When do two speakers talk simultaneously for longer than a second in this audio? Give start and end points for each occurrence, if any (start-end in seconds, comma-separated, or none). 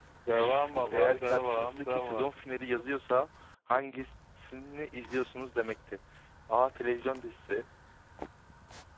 0.9-2.2